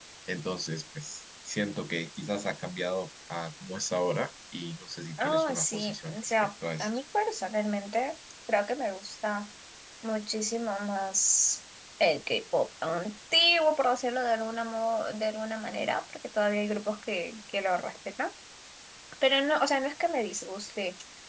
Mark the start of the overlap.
5.2 s

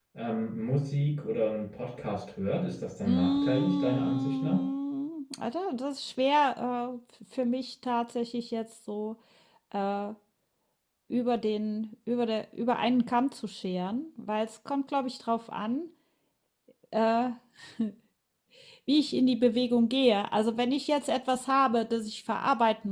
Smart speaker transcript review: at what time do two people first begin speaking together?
3.0 s

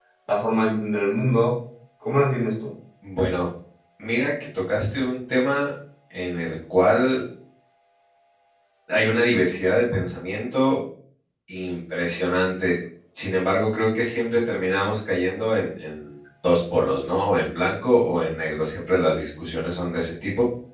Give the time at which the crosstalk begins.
none

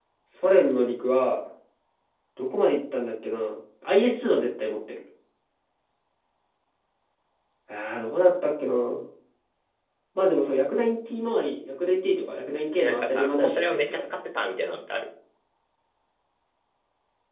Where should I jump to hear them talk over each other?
12.8 s

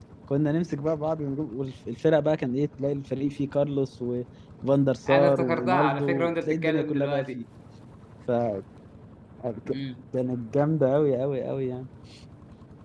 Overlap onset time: 5.1 s

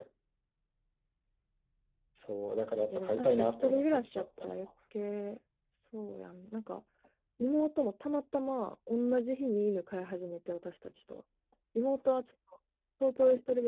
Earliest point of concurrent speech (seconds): 2.9 s

